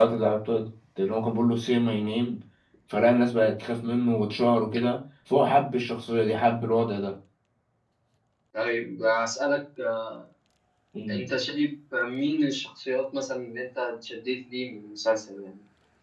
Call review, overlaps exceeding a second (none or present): none